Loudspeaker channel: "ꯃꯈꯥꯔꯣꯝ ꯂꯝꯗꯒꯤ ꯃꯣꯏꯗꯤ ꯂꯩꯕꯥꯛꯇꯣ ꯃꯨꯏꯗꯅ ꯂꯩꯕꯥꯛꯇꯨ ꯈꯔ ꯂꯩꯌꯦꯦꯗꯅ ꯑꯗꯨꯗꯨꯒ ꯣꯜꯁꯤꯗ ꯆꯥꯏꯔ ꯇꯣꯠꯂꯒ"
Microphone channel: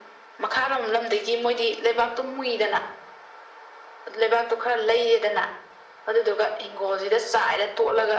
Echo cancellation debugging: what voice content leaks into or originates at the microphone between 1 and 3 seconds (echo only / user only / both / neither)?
echo only